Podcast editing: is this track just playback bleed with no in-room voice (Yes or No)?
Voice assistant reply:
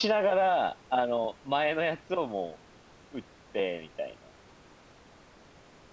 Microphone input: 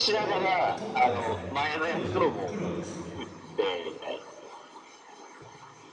No